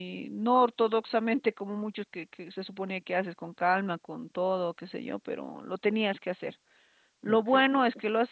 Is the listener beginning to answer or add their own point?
No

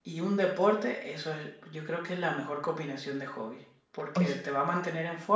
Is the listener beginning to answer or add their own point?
No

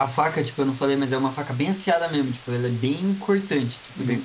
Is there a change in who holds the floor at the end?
No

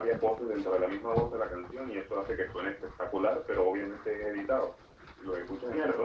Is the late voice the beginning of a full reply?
Yes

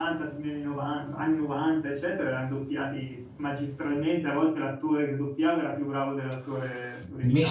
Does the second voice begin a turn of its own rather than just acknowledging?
Yes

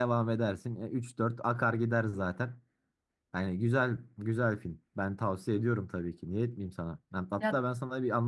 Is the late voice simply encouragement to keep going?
Yes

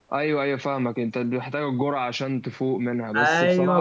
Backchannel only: No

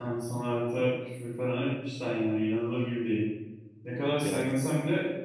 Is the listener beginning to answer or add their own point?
No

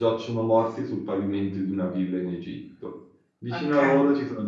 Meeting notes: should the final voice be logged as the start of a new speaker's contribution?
No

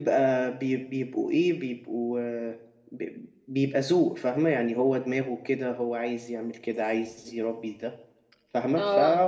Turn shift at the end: No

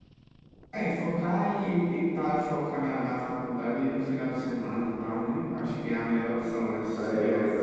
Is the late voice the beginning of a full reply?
Yes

